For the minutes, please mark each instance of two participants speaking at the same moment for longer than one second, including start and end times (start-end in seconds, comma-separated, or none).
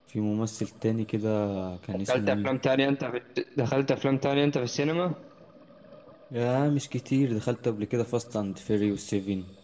none